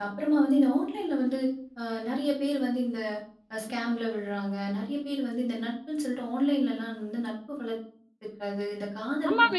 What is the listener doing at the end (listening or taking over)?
taking over